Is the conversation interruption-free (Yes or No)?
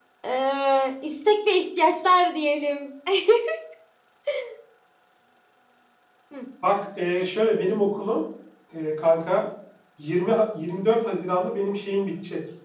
Yes